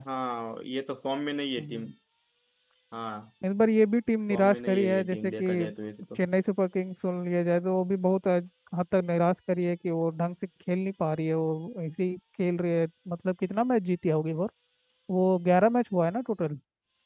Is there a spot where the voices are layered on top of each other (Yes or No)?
Yes